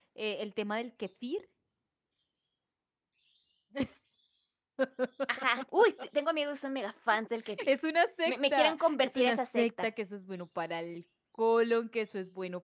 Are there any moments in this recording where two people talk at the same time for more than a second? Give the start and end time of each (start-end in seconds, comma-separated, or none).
8.3-9.9